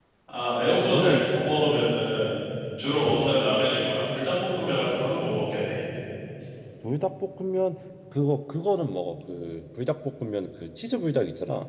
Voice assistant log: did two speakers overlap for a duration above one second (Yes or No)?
No